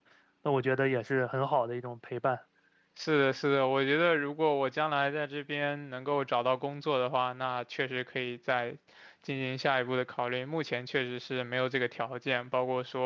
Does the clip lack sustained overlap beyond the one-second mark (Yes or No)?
Yes